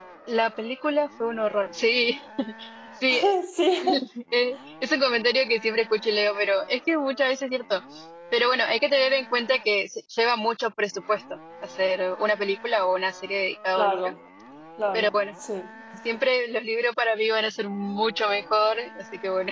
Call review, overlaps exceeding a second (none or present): none